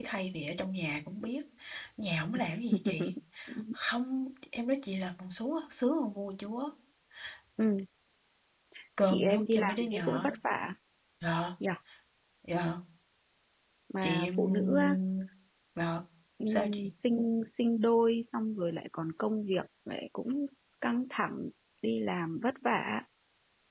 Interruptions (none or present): present